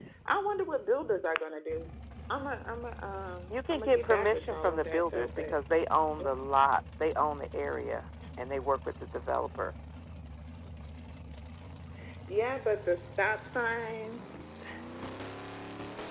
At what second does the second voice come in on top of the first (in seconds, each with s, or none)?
3.5 s